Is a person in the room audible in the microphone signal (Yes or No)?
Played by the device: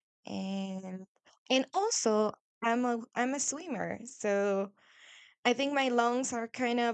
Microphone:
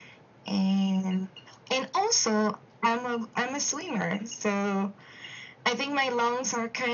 No